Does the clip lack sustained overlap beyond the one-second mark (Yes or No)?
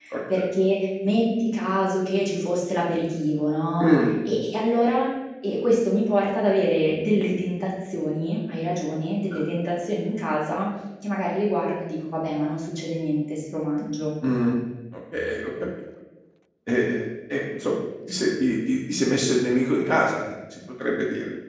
Yes